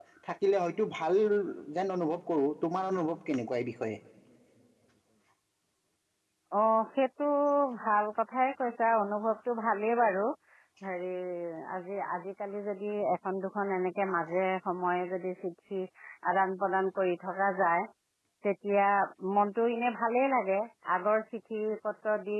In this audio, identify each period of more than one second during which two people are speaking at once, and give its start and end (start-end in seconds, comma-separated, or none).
none